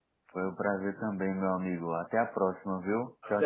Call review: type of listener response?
taking over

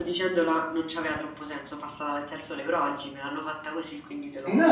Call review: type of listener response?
taking over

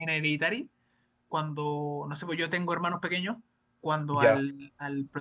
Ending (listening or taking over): listening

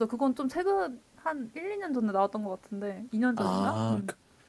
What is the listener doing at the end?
taking over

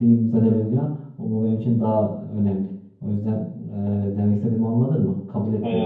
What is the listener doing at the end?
taking over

